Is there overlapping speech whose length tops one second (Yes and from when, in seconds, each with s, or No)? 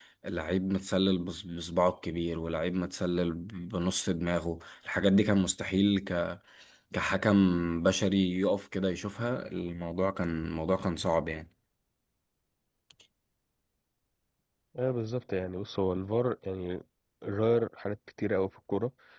No